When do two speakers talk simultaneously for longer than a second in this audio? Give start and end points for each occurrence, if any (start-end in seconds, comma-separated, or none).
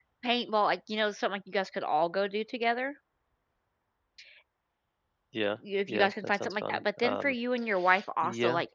5.9-7.3